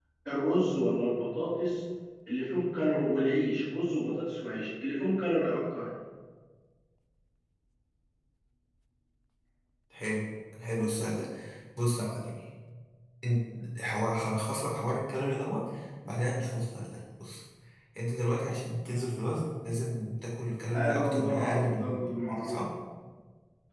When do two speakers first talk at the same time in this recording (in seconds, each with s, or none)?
20.7 s